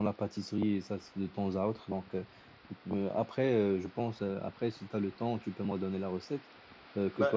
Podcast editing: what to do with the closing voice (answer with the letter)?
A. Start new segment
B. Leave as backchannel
B